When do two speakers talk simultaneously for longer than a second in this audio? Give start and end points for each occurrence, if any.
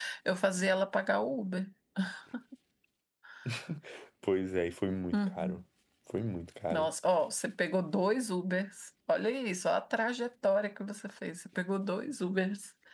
none

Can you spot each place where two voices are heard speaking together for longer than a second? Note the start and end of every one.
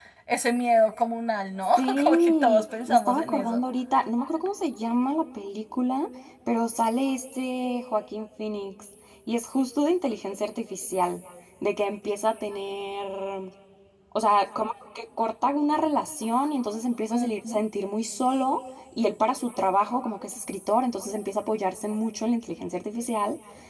1.6-3.6

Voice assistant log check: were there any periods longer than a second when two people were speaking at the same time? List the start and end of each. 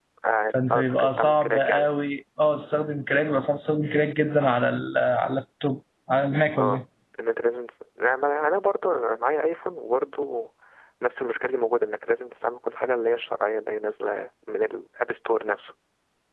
0.7-2.0

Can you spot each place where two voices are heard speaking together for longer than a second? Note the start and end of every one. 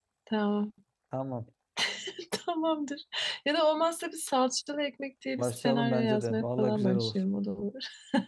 5.4-7.2

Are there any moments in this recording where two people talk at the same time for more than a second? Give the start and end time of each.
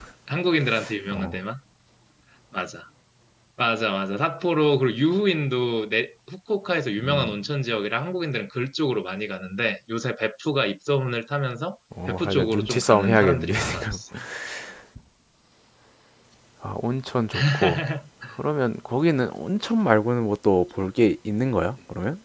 12.1-14.0

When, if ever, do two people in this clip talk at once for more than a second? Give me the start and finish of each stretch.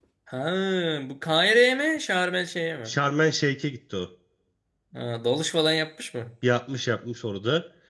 none

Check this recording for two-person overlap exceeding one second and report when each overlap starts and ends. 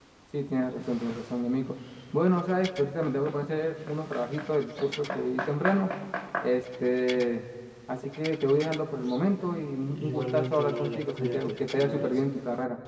10.0-12.2

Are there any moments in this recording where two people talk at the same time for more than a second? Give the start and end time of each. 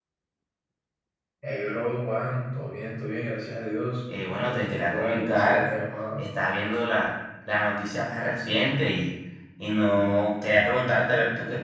4.3-5.7

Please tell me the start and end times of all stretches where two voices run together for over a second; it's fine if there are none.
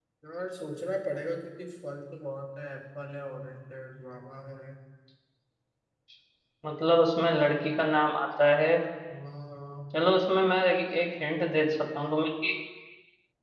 none

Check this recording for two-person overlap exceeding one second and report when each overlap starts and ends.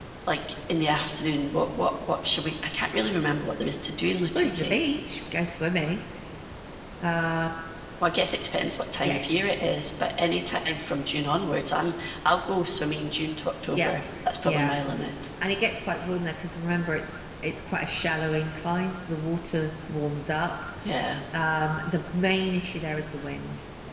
none

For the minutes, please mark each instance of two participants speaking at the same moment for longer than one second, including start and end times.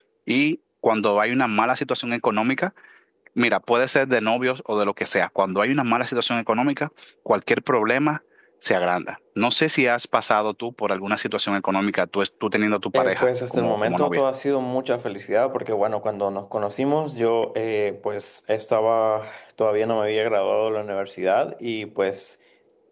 12.9-14.2

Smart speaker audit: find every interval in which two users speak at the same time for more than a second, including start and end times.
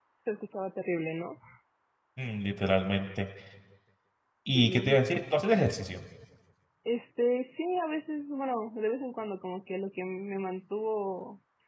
none

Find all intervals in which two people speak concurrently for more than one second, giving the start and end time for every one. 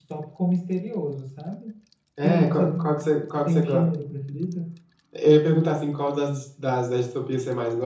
2.2-3.6

